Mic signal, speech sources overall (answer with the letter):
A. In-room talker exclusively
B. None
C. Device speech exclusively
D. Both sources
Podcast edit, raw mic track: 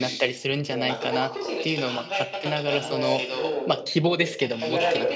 D